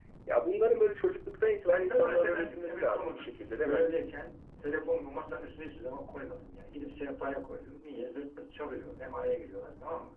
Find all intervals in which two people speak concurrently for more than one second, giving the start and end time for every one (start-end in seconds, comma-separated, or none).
1.7-3.8